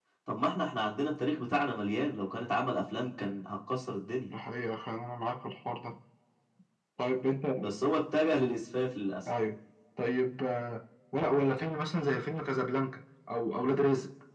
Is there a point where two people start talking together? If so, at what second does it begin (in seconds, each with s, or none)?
none